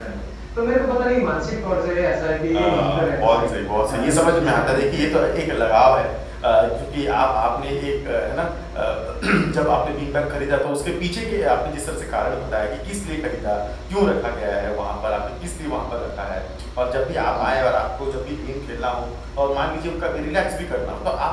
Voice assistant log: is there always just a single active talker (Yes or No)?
No